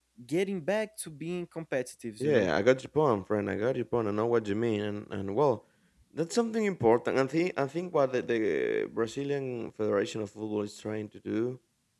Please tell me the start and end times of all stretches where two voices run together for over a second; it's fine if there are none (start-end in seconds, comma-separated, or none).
none